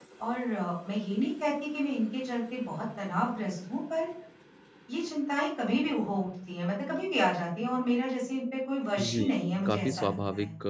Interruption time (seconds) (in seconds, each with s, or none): 9.0 s